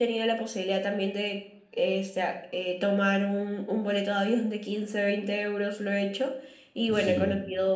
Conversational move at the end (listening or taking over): listening